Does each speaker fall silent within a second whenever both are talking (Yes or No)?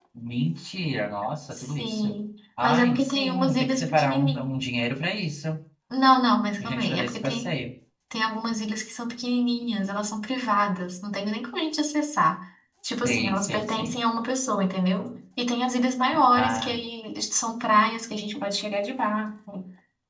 No